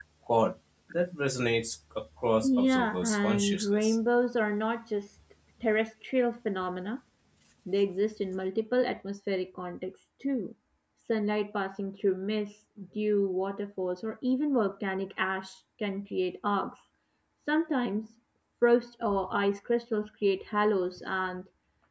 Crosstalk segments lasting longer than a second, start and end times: 2.4-4.0

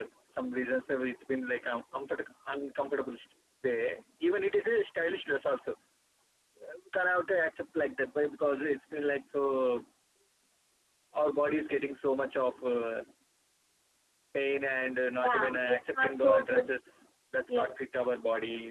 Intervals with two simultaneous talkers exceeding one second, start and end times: 15.2-16.7

